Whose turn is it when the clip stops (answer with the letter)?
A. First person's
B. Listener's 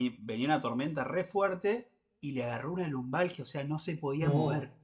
A